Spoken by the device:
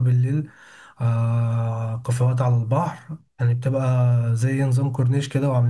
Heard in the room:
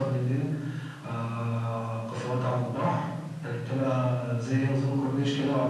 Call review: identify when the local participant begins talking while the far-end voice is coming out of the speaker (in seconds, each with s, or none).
none